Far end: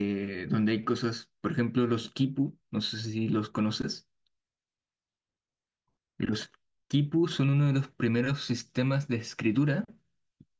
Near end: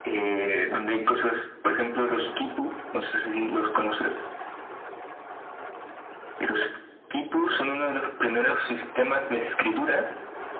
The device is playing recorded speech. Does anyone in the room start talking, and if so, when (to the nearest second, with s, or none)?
none